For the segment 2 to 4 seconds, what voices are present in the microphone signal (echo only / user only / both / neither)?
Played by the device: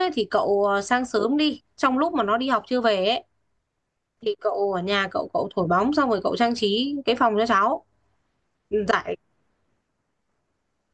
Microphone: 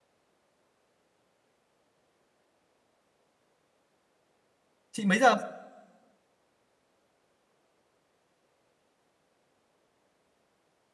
neither